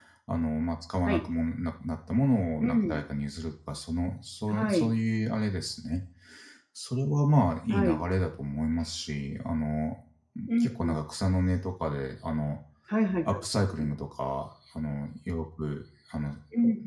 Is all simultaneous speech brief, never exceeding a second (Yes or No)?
Yes